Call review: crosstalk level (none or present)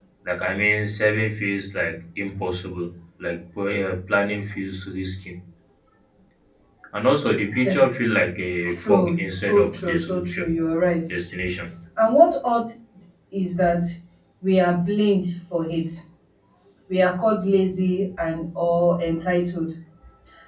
present